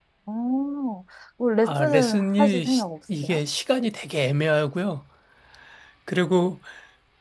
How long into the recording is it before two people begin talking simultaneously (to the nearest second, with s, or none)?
2 s